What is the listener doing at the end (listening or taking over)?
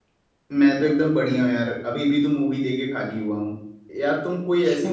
listening